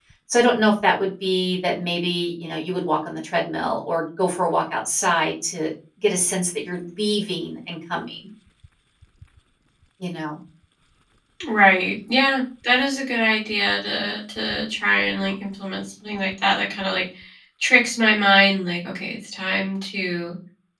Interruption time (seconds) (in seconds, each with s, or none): none